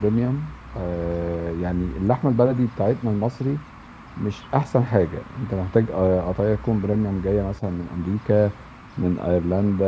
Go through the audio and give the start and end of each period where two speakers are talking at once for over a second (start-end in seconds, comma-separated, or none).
none